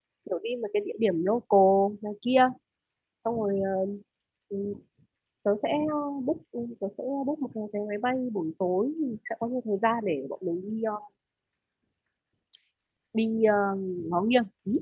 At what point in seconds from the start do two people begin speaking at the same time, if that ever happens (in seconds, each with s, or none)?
none